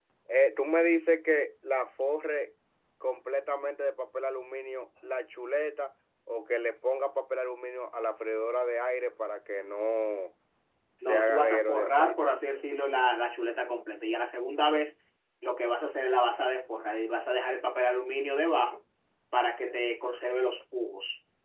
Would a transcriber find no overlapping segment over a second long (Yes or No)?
No